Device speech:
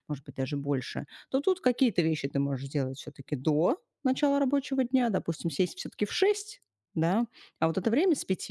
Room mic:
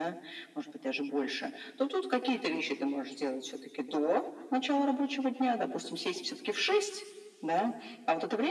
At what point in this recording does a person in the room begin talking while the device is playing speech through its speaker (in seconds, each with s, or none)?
none